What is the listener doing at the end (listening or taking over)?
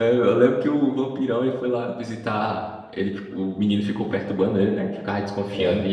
listening